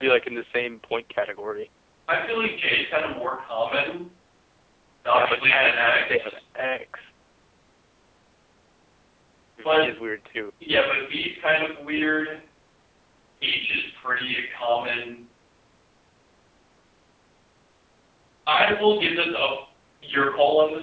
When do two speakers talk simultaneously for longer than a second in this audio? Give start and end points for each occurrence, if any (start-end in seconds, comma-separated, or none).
5.1-6.4